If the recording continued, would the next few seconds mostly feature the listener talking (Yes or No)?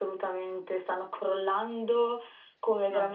No